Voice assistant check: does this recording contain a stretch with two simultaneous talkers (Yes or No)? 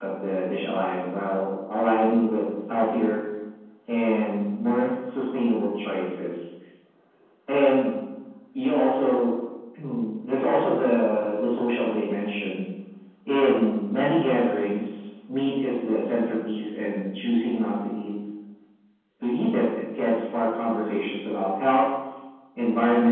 No